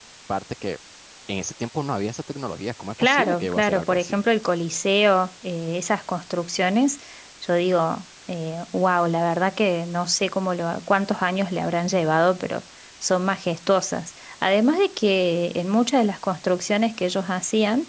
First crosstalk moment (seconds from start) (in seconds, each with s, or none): 3.0 s